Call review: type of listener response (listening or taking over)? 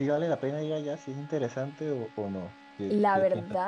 taking over